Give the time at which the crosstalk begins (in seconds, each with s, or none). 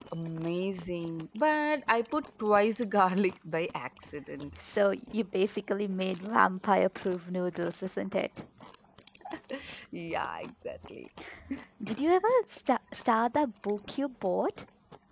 none